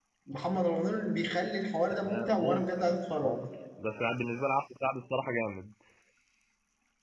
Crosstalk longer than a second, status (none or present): present